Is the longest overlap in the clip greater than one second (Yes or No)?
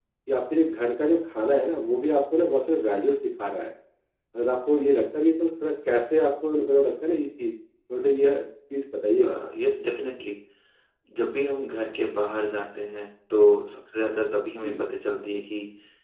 No